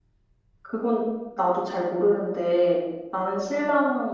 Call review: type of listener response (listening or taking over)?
listening